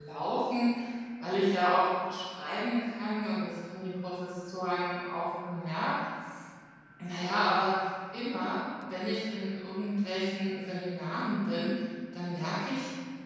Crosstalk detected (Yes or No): No